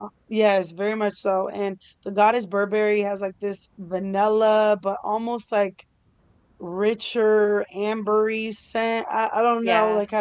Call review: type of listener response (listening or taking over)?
listening